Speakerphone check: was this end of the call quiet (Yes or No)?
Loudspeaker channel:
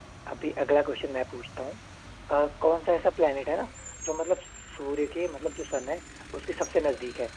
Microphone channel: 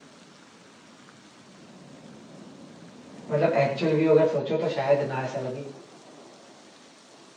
No